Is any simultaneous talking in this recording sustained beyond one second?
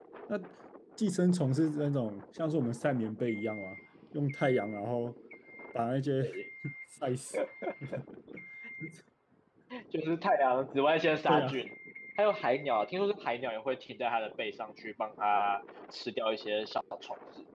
No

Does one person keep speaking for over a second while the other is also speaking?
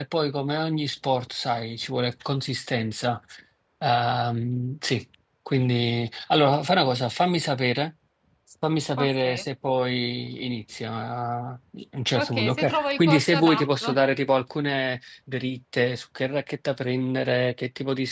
Yes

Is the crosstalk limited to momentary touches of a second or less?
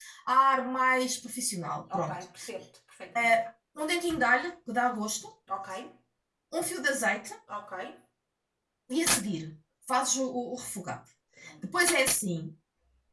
Yes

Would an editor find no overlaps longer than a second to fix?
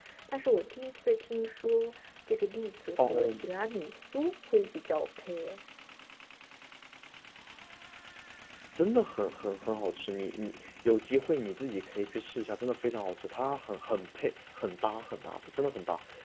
Yes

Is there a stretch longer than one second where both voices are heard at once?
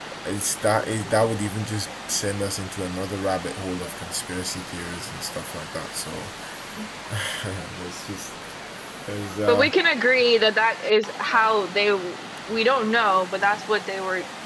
No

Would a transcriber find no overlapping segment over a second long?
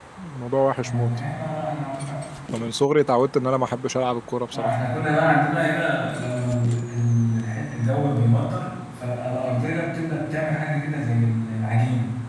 Yes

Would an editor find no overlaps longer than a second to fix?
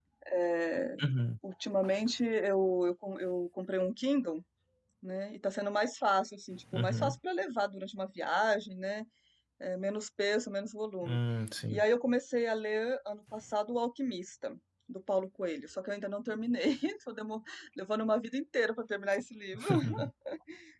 Yes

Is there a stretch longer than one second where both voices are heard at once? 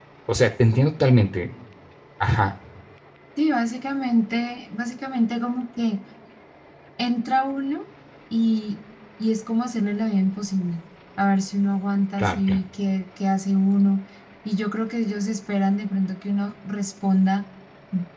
No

